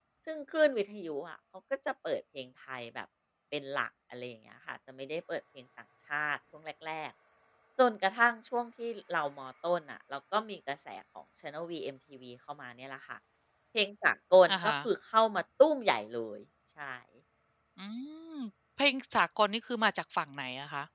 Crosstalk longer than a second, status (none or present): none